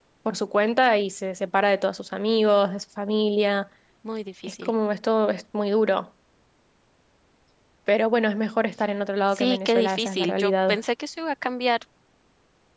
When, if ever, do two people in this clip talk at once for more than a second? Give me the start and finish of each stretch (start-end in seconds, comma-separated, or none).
9.3-10.8